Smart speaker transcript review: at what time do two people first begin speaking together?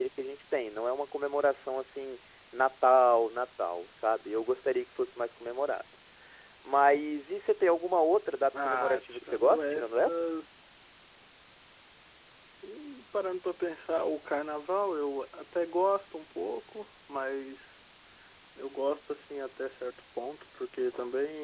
9 s

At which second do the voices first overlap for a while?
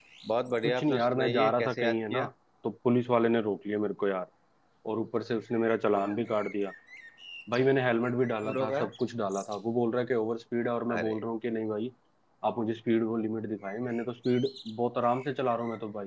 1 s

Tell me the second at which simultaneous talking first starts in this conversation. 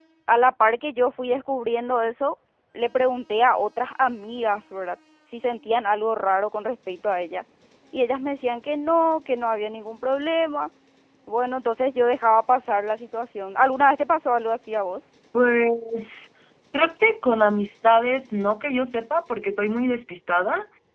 none

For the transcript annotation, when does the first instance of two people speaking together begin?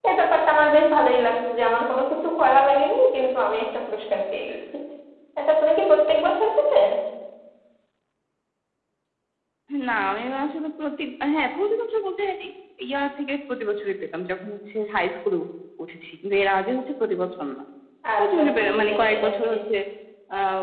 18 s

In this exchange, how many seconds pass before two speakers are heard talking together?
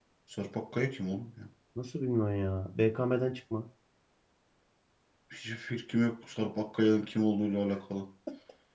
none

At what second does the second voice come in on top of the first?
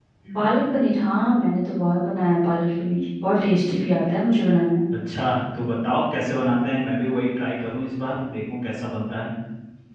none

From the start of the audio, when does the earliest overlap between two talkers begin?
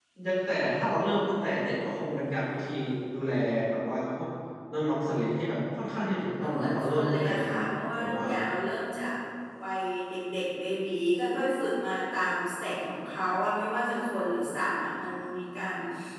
6 s

